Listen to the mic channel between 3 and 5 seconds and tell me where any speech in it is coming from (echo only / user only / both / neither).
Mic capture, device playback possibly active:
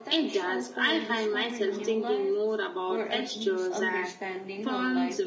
both